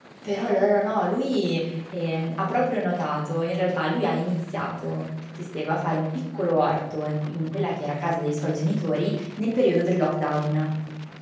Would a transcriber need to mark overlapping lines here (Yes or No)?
No